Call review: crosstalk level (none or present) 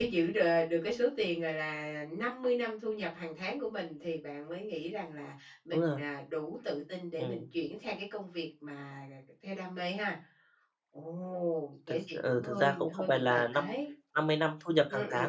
present